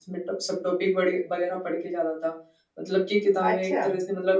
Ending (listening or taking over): listening